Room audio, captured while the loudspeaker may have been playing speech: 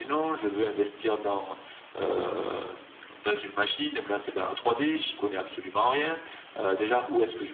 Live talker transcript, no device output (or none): none